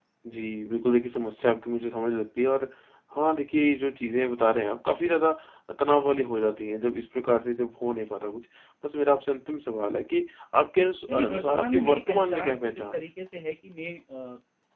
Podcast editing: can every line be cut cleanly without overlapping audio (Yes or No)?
No